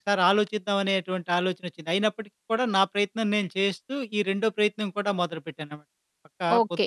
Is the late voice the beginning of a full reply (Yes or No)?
Yes